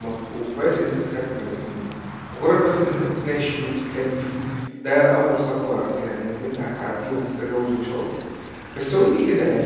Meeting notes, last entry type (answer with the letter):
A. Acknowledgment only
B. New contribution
A